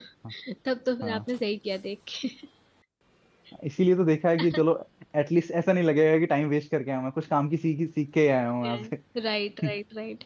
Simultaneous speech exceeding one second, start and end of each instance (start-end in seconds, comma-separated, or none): none